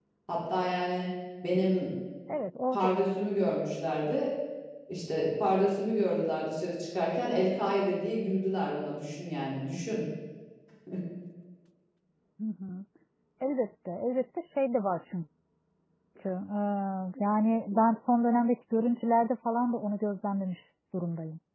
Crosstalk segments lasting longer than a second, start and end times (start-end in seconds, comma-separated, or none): none